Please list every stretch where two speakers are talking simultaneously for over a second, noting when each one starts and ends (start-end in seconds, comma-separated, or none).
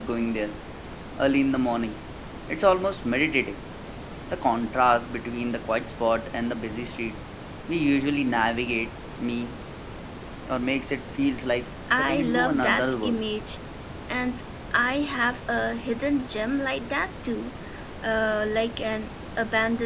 11.9-13.2